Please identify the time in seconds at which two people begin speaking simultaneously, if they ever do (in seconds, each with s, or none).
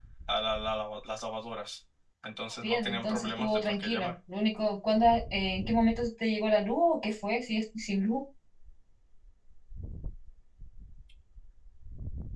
2.6 s